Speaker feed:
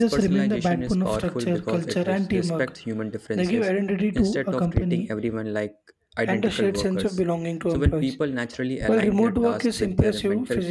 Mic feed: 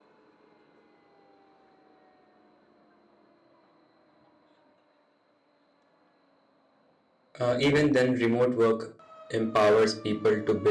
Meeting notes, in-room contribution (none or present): present